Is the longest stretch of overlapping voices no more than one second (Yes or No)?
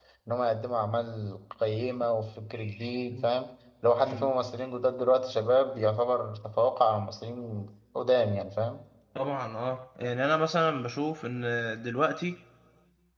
Yes